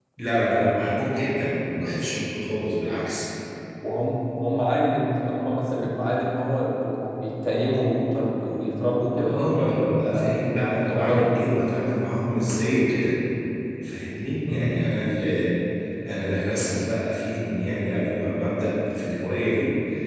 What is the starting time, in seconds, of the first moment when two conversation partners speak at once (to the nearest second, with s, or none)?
10 s